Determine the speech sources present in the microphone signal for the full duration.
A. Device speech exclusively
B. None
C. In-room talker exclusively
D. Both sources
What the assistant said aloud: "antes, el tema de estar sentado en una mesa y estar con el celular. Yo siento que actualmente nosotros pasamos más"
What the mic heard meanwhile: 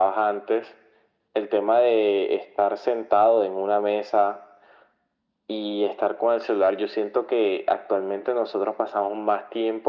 A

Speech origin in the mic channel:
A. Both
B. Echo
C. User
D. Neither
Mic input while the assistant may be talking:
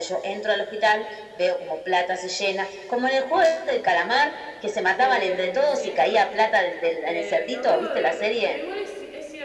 A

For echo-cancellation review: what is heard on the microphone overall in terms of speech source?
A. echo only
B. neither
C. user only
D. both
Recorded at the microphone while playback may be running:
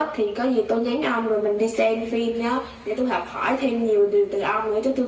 A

